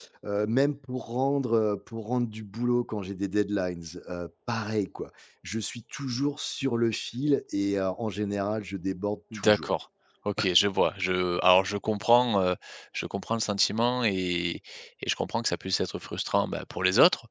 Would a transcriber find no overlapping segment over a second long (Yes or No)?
Yes